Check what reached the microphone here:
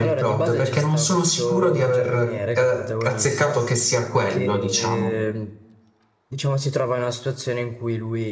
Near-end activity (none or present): present